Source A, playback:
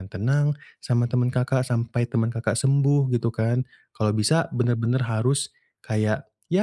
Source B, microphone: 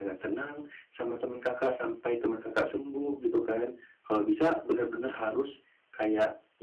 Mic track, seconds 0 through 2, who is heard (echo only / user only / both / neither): echo only